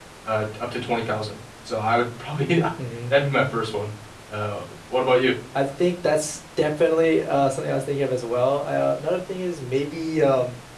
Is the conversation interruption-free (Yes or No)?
Yes